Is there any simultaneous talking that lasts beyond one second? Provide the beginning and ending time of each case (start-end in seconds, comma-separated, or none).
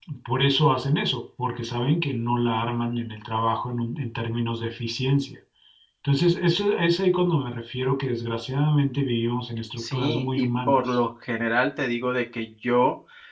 9.8-11.0